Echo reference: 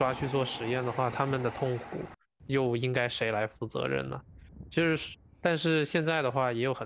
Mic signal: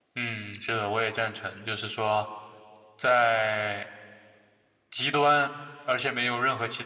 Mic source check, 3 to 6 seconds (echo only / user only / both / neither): user only